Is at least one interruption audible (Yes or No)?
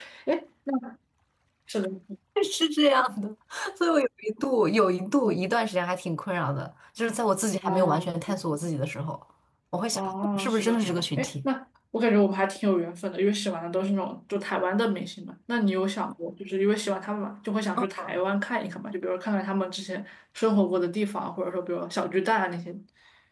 Yes